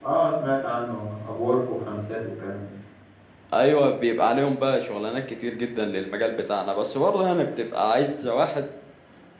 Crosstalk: none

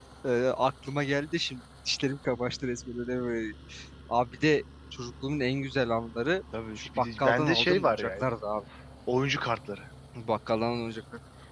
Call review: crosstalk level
present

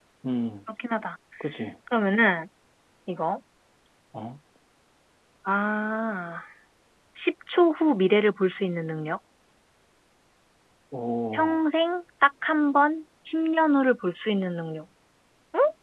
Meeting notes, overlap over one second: none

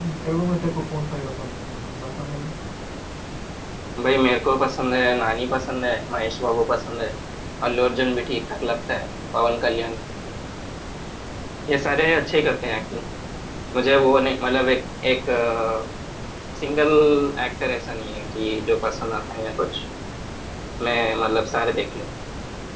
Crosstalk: none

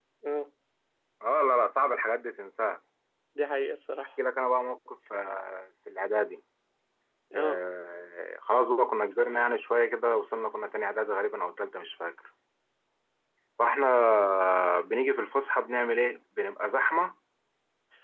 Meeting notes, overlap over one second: none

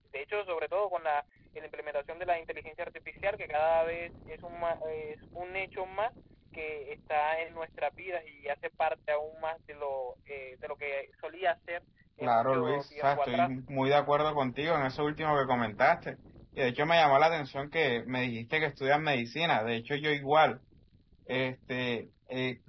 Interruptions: present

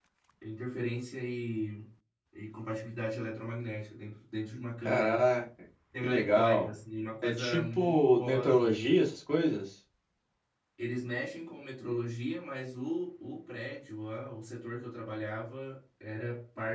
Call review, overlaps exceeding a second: present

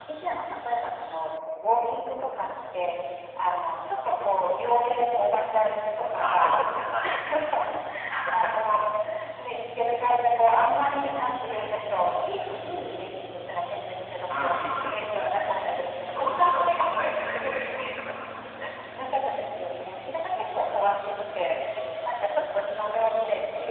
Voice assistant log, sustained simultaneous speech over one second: present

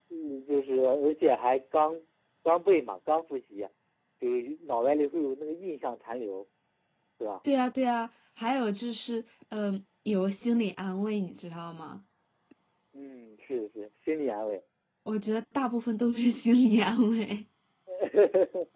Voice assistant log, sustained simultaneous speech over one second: none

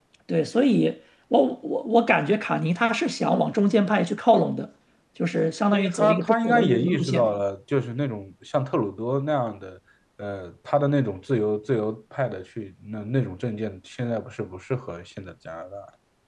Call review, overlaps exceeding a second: present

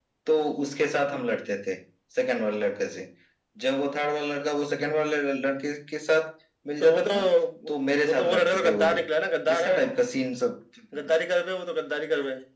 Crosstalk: present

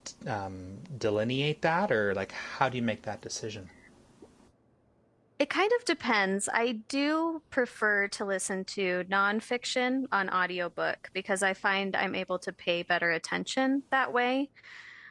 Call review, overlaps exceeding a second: none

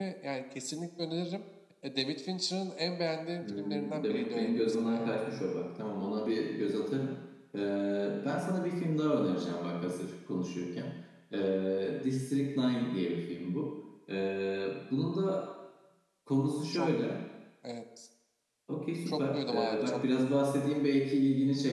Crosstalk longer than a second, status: present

